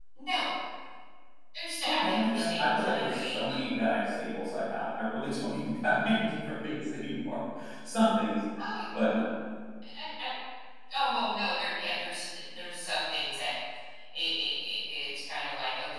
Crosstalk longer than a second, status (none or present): present